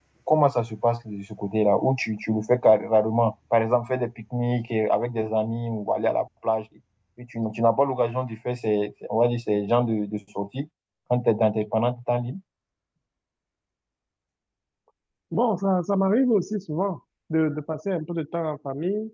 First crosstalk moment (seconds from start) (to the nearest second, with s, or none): none